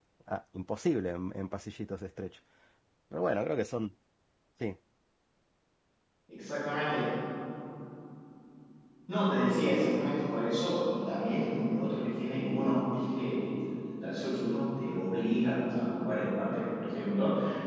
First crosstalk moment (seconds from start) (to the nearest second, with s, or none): none